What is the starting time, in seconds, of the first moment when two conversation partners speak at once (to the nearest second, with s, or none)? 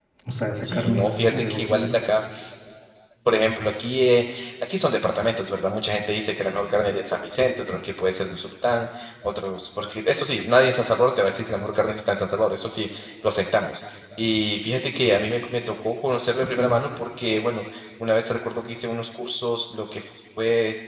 1 s